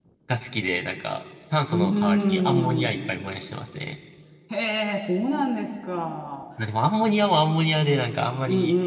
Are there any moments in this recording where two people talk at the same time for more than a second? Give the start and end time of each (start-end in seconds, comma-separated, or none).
1.6-3.0